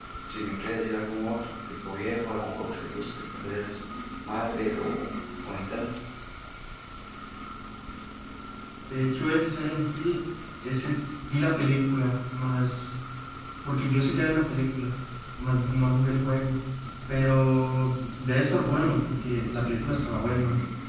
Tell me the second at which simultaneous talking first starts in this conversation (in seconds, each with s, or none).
none